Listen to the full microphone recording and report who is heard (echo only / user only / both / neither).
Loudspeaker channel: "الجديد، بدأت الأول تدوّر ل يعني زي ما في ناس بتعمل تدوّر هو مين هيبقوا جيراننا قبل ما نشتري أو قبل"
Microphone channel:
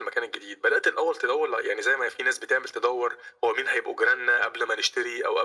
echo only